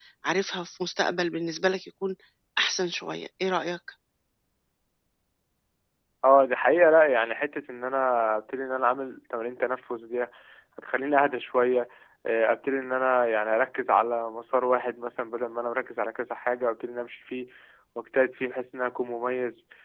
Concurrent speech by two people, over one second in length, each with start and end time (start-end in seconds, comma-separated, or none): none